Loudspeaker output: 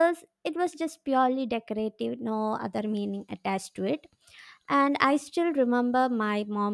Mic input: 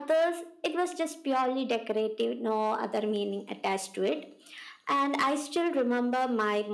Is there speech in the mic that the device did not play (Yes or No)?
No